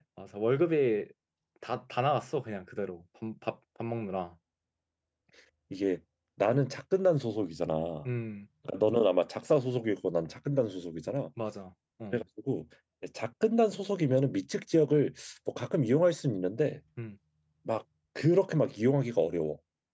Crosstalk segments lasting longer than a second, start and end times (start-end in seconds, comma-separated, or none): none